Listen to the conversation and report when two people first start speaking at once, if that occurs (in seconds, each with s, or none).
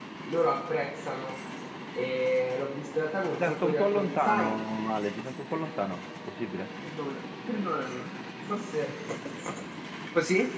3.3 s